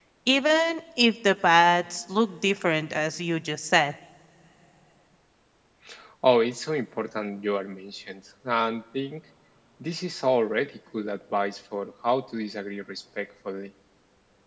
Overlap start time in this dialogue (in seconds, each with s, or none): none